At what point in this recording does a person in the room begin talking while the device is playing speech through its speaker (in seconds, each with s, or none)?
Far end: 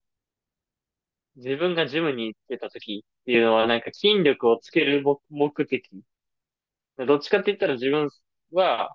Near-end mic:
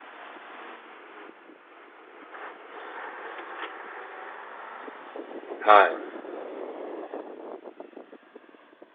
5.6 s